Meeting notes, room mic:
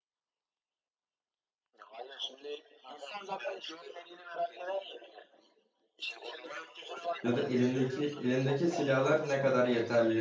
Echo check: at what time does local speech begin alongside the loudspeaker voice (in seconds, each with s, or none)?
7.2 s